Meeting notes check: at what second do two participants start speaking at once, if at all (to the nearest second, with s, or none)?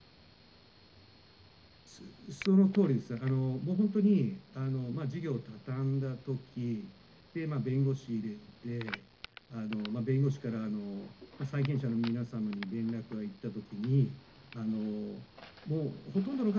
none